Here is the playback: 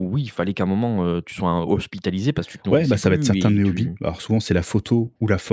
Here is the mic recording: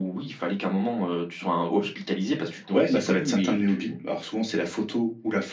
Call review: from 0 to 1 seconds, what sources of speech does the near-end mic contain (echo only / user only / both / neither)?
echo only